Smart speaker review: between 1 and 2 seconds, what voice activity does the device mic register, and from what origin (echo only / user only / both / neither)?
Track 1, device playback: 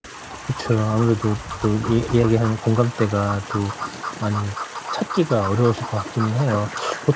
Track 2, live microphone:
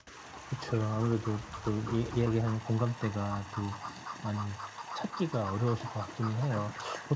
echo only